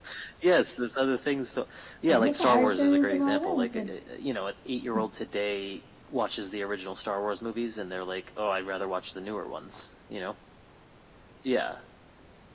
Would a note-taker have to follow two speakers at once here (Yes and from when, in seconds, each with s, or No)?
Yes, from 2.1 s